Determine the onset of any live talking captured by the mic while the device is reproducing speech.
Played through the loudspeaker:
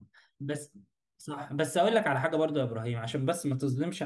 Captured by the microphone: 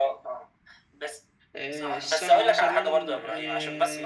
1.5 s

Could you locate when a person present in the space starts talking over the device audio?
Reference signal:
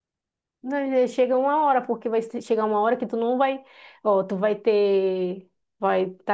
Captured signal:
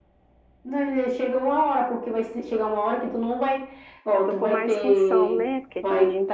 4.1 s

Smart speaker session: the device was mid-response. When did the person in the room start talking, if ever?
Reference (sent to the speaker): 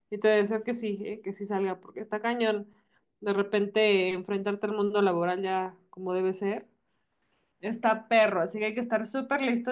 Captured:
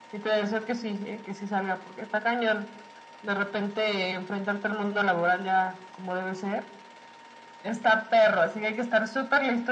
none

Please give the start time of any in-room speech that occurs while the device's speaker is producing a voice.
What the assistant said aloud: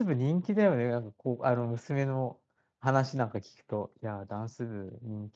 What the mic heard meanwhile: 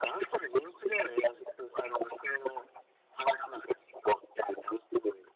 none

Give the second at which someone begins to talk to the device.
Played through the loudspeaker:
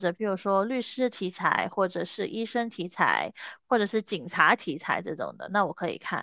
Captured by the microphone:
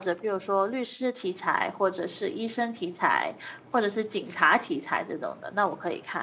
none

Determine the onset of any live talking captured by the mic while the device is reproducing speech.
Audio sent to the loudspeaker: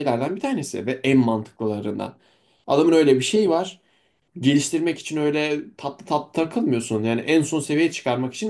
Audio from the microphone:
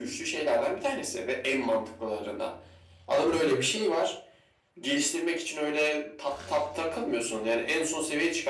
3.5 s

